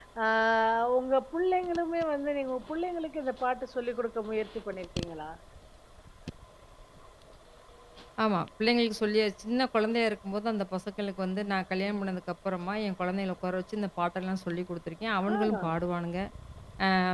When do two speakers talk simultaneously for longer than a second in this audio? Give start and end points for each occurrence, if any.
none

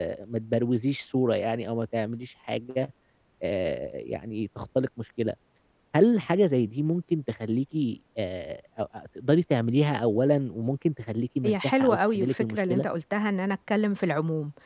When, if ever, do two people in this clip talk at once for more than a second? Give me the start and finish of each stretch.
11.4-12.9

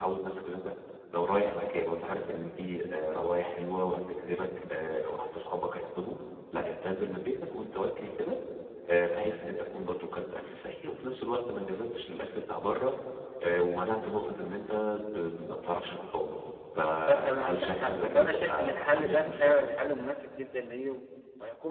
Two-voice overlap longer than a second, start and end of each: 17.0-19.7

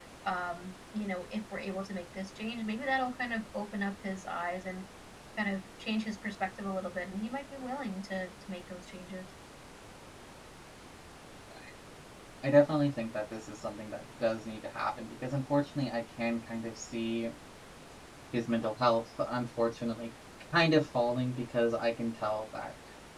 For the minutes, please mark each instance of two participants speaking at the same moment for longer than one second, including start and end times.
none

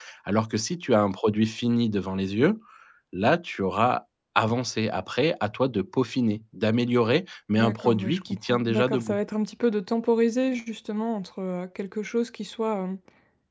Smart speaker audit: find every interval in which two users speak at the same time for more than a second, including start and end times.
7.6-9.2

